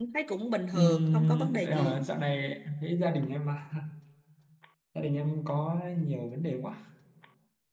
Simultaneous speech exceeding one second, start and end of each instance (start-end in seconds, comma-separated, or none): 0.7-2.0